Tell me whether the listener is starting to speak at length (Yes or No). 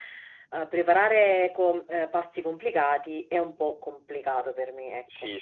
Yes